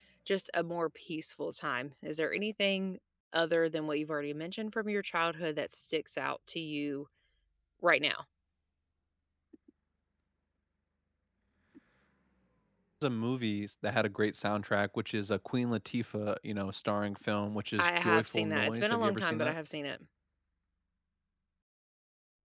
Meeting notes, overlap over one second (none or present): present